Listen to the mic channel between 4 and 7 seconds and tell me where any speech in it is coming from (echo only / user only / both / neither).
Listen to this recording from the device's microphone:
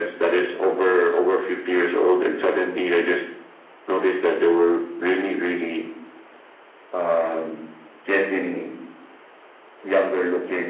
echo only